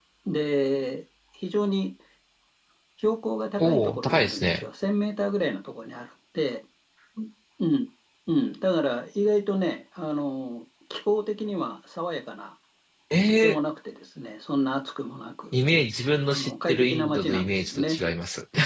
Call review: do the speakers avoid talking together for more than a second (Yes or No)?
No